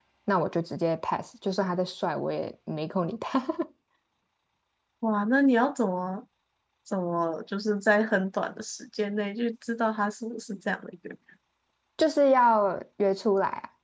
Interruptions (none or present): none